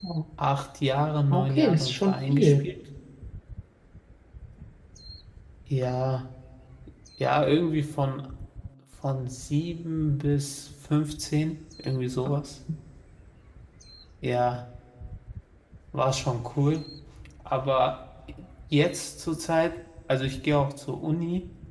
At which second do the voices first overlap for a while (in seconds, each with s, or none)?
1.3 s